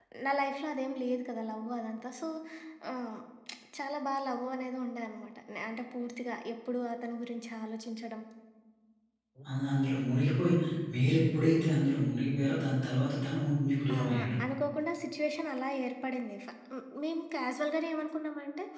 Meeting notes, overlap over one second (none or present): none